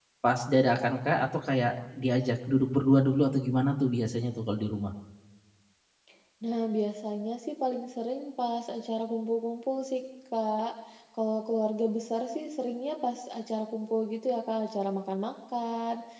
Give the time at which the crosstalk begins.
none

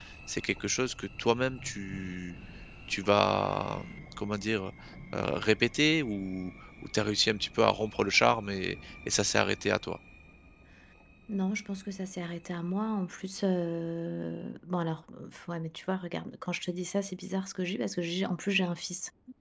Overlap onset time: none

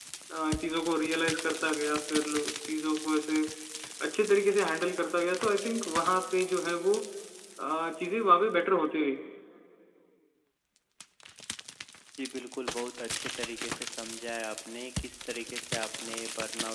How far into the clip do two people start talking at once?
none

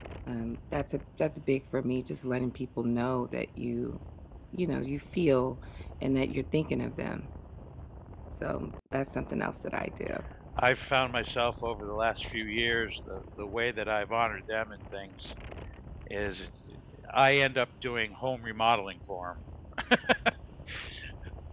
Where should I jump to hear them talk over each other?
none

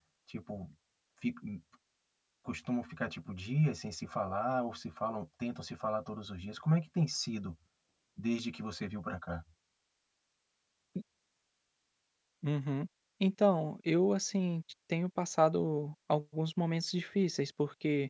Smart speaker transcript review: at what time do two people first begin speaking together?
none

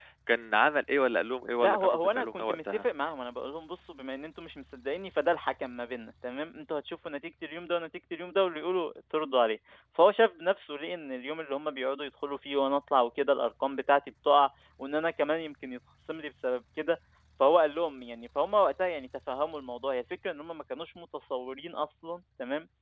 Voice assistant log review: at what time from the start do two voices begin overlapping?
1.6 s

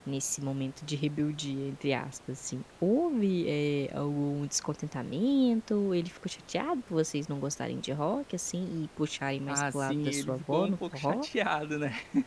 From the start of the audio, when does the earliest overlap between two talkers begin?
9.5 s

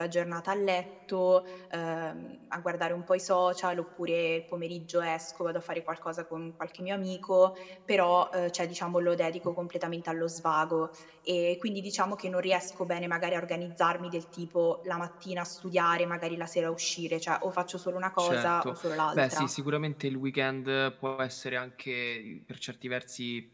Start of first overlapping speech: 18.2 s

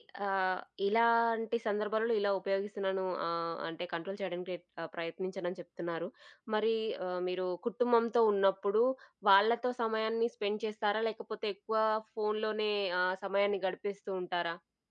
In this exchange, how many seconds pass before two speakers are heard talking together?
none

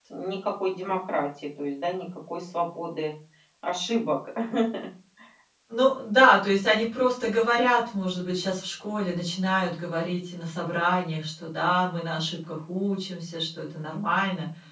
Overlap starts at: none

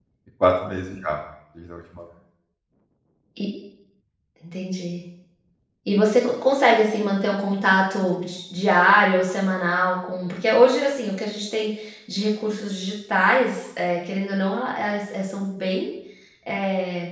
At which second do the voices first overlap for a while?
none

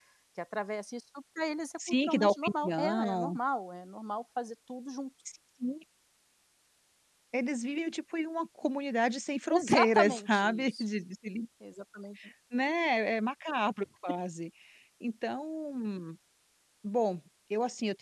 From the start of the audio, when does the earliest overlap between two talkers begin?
2.0 s

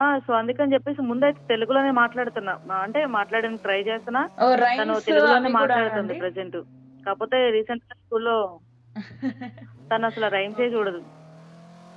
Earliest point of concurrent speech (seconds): 4.8 s

